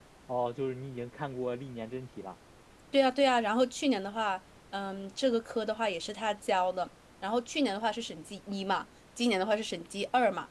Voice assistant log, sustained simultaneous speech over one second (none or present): none